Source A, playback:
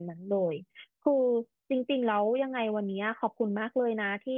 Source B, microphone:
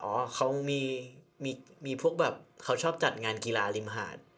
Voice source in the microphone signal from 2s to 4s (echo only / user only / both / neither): user only